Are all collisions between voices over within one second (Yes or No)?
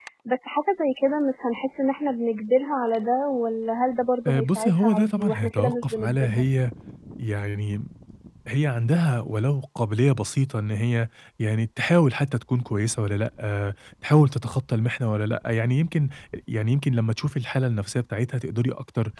No